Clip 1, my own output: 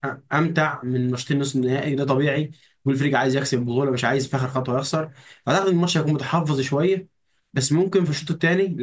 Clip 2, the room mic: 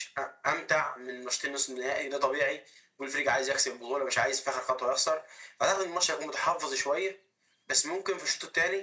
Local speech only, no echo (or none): none